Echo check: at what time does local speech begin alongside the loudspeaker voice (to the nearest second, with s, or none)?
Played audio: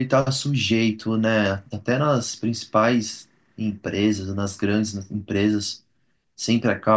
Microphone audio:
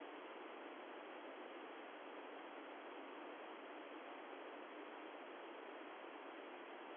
none